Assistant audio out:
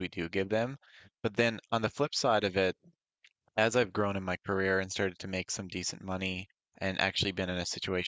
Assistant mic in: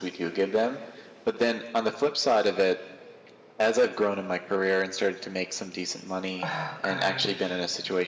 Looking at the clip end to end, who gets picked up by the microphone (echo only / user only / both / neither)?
both